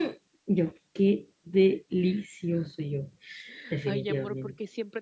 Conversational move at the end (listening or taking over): taking over